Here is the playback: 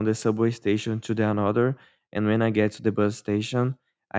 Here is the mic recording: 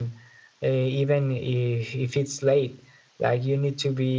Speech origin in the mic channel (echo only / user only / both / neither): user only